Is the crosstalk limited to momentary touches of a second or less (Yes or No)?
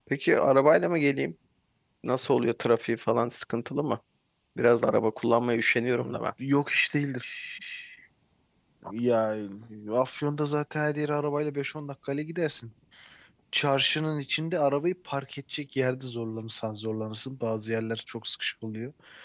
Yes